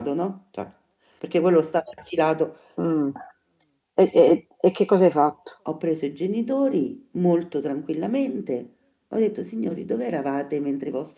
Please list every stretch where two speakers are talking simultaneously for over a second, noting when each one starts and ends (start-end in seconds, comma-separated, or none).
none